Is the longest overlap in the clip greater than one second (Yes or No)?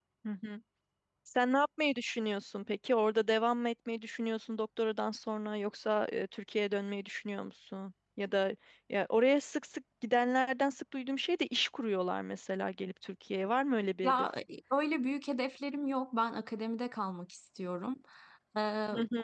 No